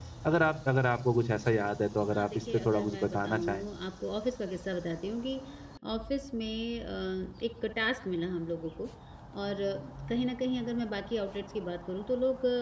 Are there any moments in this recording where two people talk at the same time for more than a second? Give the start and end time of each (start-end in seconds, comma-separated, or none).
2.1-3.6